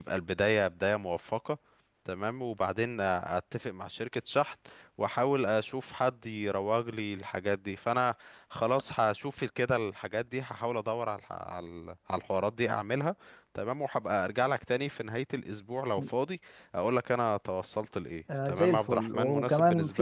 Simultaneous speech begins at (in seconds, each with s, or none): 18.3 s